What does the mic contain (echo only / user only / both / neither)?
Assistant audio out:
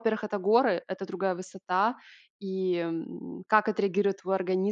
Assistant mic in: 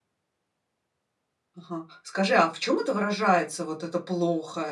user only